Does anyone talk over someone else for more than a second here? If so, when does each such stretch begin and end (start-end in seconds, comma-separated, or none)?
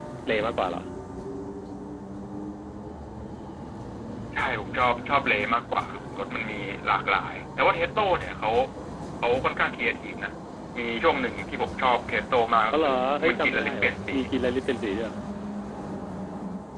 12.7-14.1